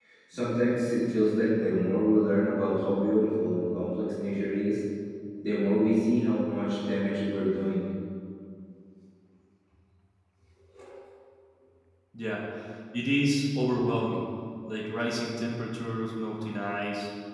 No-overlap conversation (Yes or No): Yes